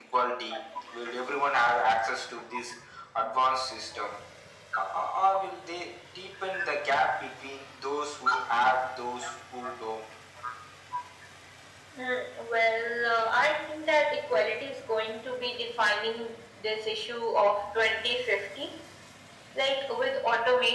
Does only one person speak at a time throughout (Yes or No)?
Yes